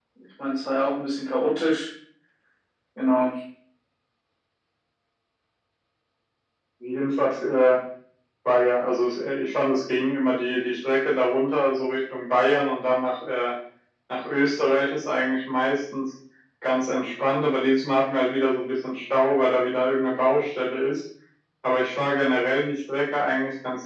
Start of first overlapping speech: none

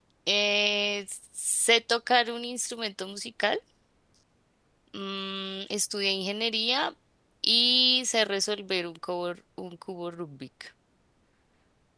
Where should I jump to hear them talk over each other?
none

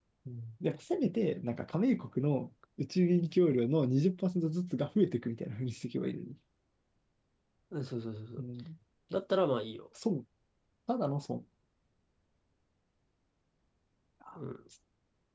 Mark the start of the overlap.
none

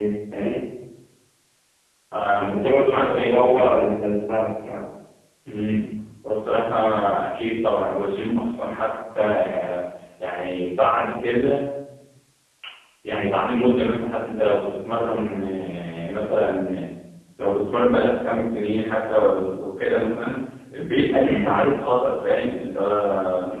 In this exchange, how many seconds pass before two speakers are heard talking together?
2.5 s

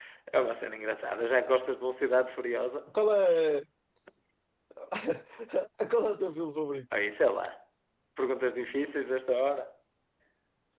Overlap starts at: none

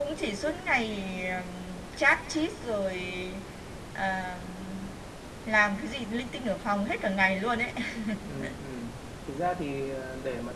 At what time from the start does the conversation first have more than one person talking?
none

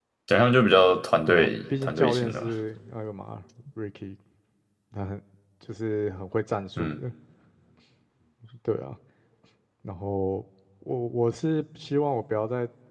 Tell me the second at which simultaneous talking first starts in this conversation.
1.3 s

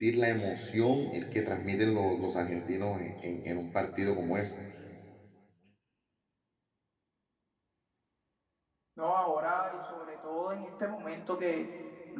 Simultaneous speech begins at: none

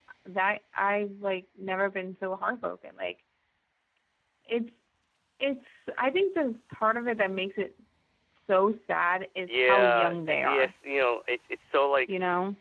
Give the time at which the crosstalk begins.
9.5 s

